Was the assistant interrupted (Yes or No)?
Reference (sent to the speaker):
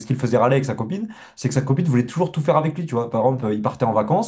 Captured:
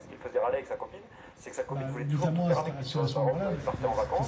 Yes